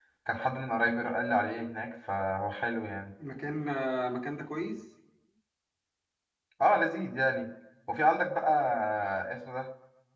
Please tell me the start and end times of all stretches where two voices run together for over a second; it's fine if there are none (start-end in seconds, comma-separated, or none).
none